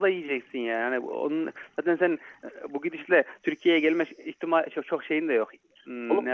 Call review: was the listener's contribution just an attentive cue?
Yes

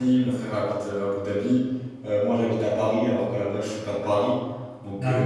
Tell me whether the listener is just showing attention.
Yes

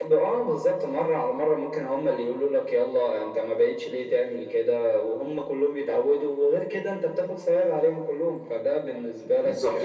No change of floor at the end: No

